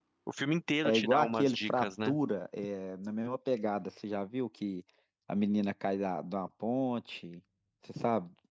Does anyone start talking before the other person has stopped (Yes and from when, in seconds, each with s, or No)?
Yes, from 0.8 s